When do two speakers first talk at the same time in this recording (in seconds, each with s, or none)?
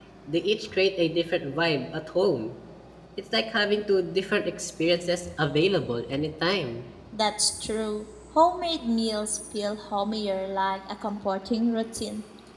none